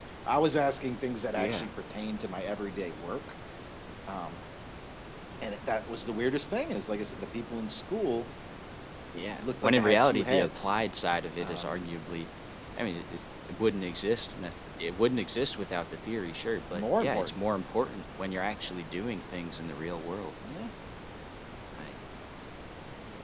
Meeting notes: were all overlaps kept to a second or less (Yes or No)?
No